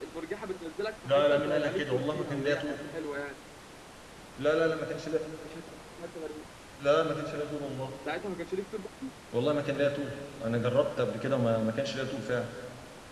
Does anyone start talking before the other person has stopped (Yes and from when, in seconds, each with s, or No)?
Yes, from 1.1 s